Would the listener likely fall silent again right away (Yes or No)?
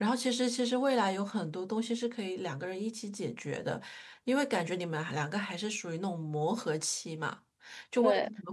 Yes